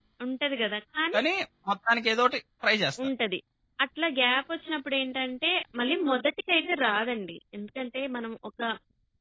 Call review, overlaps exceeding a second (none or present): none